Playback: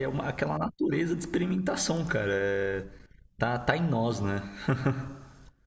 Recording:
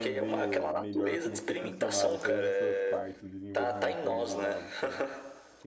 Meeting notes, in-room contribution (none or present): present